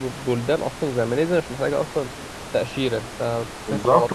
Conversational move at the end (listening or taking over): taking over